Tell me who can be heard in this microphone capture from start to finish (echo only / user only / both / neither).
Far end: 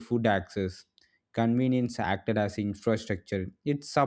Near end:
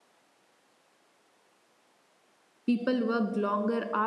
user only